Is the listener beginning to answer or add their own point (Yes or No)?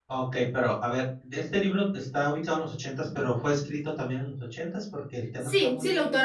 Yes